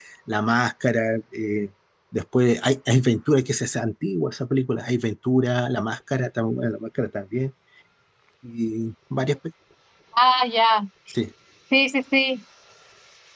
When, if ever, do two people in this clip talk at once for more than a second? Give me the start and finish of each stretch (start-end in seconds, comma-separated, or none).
none